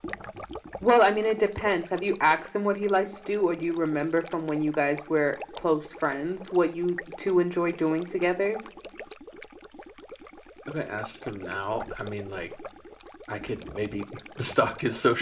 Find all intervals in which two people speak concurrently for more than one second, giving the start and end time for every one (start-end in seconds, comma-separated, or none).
none